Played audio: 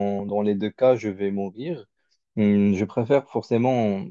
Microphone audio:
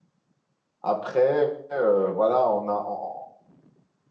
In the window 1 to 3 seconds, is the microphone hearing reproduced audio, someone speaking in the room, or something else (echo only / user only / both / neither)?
user only